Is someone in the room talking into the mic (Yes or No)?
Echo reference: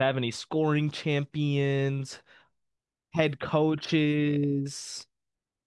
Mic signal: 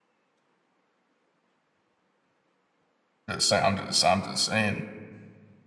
Yes